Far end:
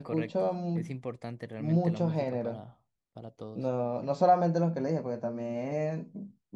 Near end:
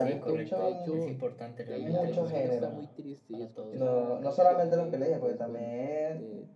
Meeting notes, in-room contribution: present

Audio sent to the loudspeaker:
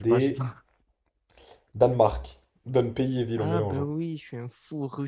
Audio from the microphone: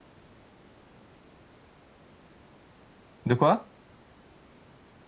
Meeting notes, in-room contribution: present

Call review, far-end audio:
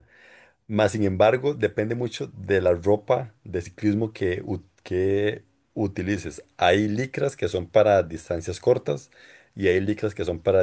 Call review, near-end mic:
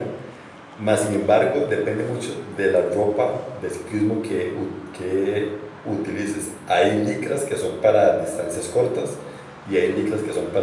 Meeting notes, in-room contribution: none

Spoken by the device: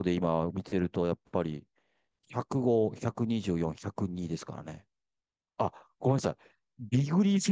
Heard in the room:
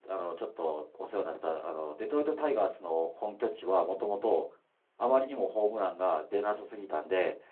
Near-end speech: present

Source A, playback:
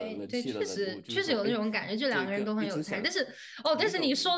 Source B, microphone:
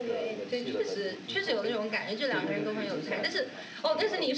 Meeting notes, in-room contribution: present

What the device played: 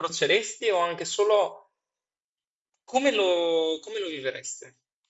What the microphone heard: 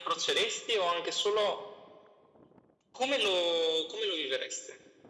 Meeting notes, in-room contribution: none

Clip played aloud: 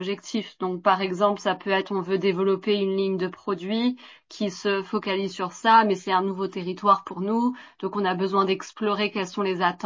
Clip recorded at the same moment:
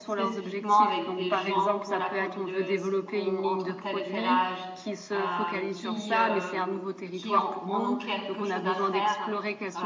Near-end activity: present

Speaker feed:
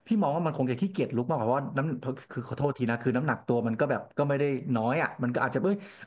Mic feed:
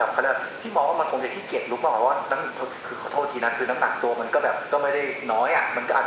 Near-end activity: none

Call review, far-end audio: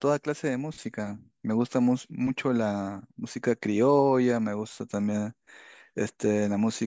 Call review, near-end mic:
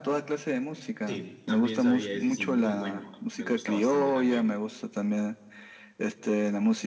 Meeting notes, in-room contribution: present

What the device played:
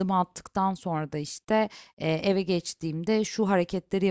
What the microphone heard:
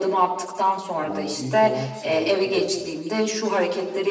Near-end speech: present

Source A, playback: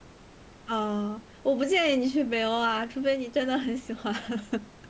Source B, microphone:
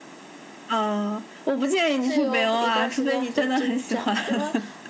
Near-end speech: present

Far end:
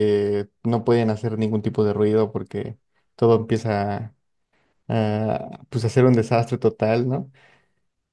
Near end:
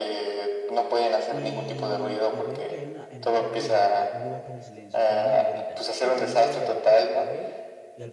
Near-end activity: present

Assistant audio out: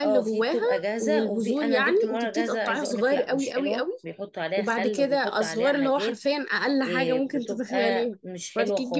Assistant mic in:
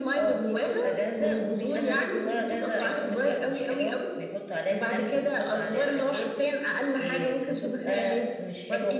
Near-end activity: none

